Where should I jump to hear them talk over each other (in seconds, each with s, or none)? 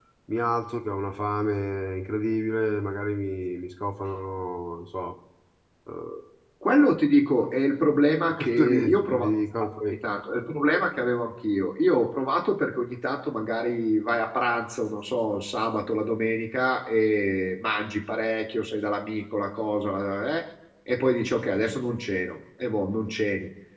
8.3 s